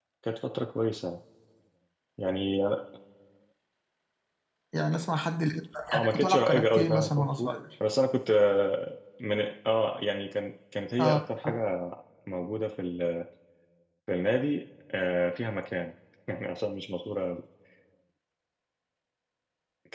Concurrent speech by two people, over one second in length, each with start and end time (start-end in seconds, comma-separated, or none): 5.9-7.5